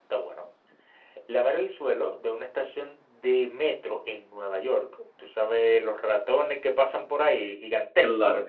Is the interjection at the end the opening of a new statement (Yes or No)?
No